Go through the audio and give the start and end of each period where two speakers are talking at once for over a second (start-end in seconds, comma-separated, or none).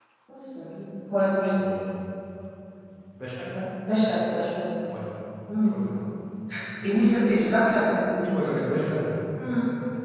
none